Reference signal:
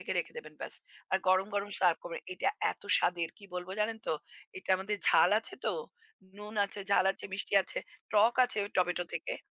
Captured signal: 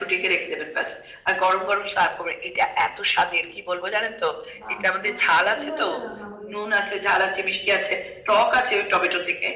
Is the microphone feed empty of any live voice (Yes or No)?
No